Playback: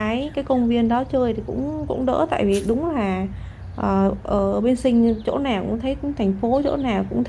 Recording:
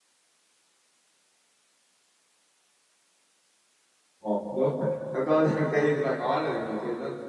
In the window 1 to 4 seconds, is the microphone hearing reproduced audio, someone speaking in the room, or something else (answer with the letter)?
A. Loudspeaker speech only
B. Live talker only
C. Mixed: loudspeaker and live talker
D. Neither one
D